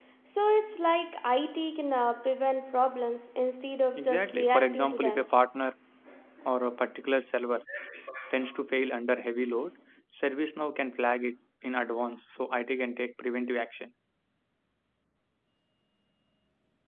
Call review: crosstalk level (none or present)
present